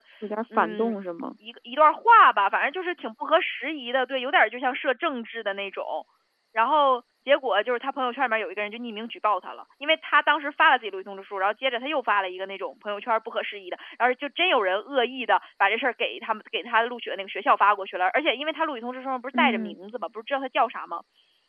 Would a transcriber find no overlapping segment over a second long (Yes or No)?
Yes